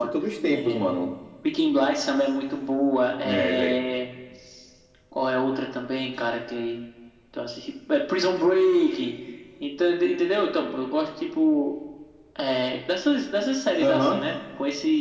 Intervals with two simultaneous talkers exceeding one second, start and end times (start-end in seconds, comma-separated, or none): none